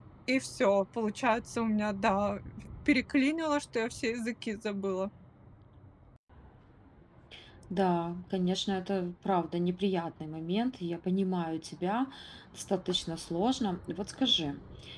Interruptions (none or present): none